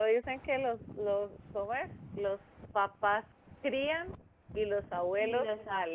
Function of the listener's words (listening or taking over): taking over